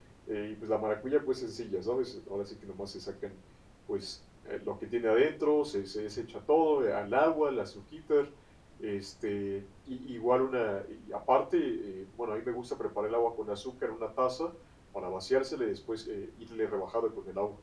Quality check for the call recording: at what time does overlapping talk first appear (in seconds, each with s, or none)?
none